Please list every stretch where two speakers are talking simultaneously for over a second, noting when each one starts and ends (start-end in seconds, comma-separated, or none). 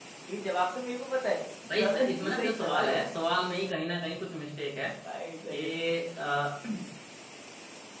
1.8-3.1